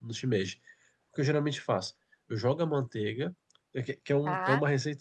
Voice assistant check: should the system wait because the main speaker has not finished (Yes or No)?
Yes